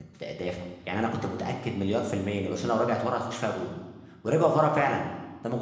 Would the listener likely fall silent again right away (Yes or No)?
Yes